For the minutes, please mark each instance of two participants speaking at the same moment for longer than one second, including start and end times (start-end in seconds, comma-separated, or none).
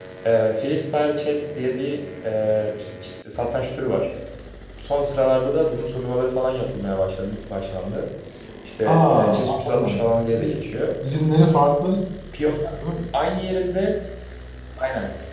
8.8-10.5